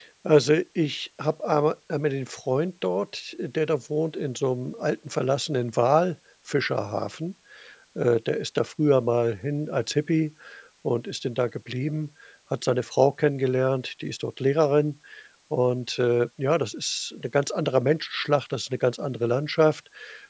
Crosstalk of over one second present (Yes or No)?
No